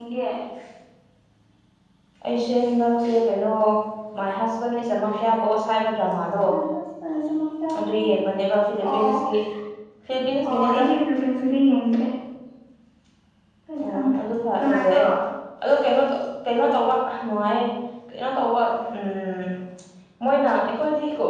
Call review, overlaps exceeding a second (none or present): none